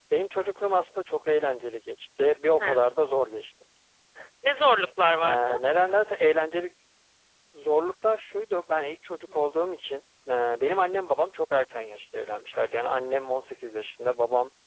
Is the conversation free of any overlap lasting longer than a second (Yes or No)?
Yes